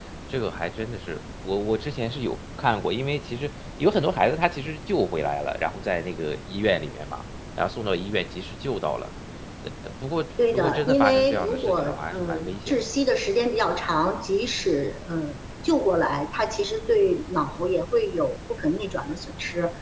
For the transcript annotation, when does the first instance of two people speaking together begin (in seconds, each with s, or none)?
10.5 s